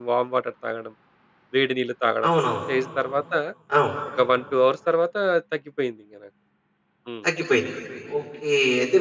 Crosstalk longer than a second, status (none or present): none